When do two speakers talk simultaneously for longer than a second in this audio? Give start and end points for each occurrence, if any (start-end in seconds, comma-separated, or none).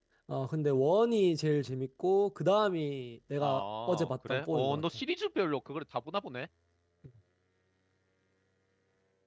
3.4-4.8